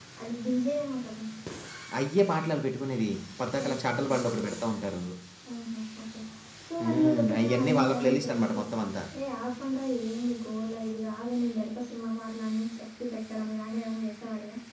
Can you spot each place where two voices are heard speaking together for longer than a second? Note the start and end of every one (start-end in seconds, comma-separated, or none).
6.8-8.6